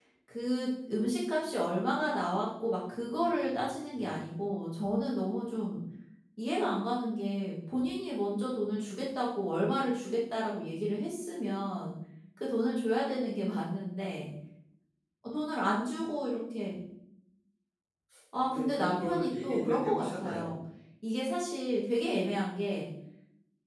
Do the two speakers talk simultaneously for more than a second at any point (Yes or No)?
Yes